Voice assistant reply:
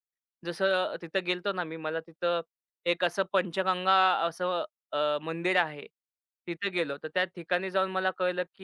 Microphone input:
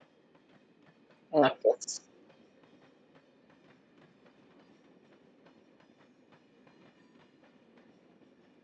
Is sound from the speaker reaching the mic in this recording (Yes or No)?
No